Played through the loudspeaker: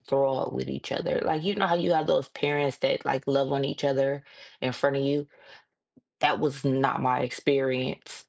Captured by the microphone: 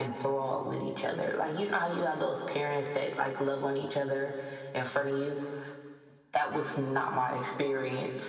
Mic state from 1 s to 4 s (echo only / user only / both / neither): echo only